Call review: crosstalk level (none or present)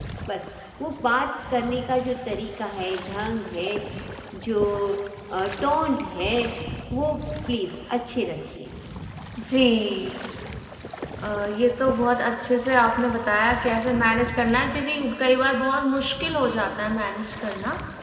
none